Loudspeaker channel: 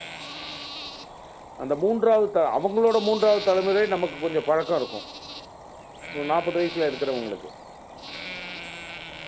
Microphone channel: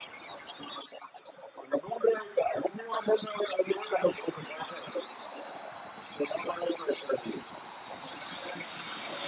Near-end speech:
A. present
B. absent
B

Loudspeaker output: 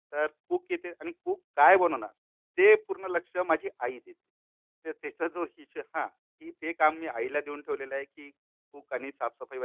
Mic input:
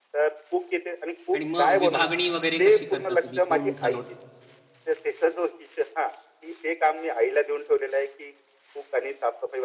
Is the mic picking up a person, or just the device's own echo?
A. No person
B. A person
B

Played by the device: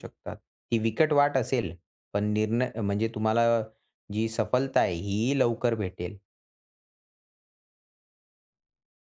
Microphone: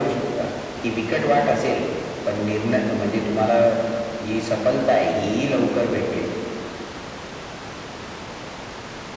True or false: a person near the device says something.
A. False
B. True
A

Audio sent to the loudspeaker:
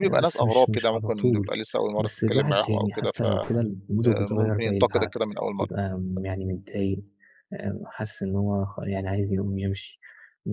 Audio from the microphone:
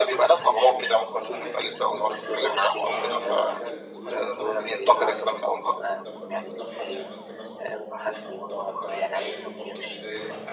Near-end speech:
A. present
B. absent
A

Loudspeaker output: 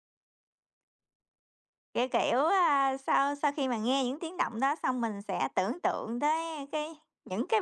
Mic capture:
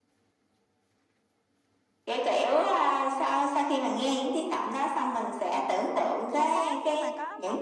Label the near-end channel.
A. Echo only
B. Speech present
B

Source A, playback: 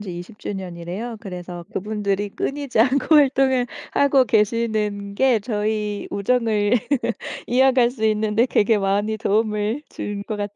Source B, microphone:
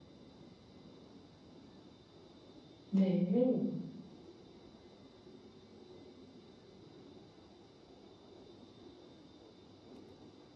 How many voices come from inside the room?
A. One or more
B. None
A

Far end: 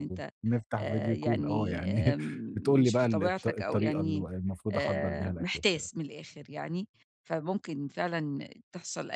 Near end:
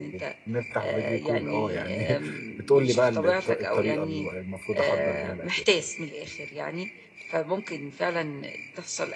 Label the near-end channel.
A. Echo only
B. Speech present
A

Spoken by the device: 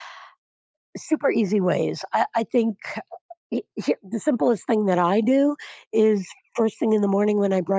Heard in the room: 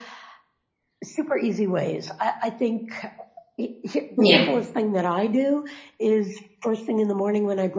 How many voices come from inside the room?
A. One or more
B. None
A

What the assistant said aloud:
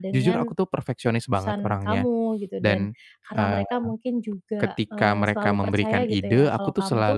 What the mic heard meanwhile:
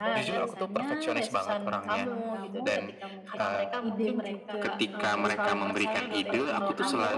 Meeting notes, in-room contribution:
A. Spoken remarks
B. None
A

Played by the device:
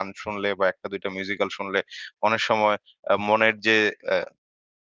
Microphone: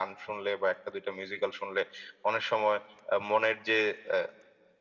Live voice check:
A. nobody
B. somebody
A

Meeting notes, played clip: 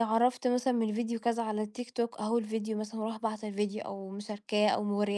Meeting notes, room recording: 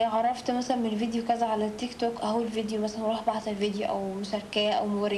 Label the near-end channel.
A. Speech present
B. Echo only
B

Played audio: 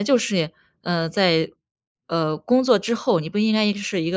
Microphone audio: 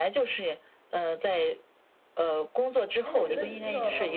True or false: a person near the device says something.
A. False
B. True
B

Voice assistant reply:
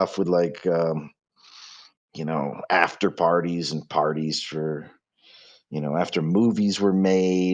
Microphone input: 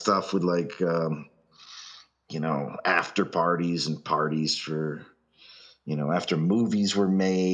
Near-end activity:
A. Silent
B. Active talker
A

